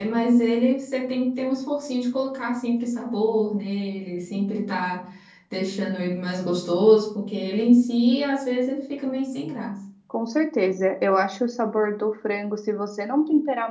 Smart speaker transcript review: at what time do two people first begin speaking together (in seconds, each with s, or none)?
none